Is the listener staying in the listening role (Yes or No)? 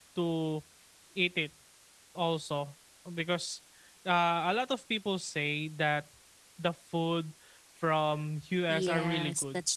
No